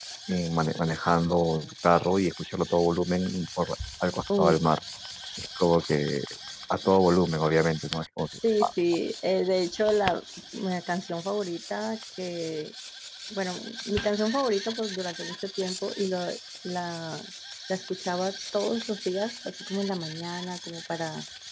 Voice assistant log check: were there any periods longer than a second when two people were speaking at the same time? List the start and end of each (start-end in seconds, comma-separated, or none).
none